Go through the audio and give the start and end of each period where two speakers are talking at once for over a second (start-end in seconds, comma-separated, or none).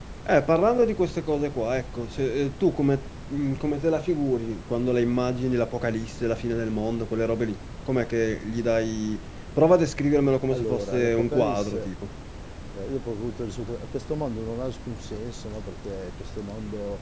10.5-11.9